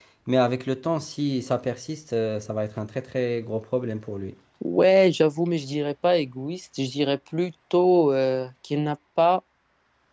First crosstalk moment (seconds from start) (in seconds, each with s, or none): none